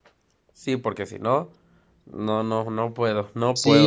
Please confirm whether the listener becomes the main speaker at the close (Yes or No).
Yes